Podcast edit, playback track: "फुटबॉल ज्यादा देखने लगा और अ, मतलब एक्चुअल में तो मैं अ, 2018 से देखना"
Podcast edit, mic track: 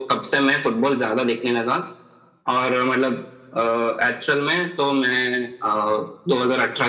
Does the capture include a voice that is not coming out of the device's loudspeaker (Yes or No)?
No